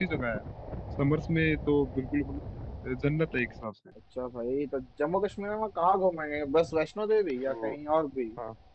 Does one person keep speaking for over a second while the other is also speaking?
No

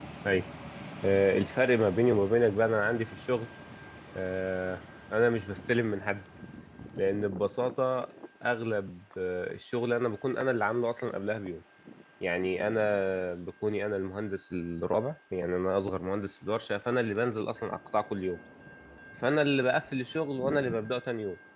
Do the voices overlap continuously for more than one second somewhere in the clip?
No

